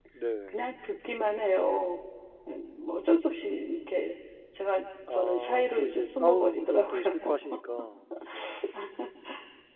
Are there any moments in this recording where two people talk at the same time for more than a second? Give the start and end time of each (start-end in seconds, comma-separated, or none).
5.1-7.1